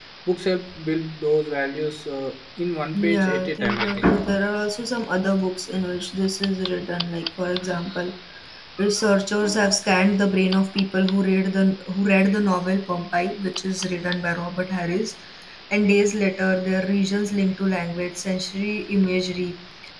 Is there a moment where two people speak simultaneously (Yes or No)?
Yes